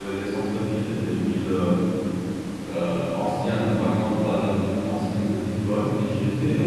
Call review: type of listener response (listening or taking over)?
listening